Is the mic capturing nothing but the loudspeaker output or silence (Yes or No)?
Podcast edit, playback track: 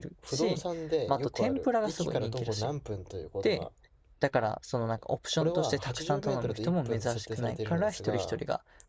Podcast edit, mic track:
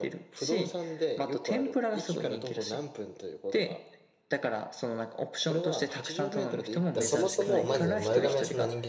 No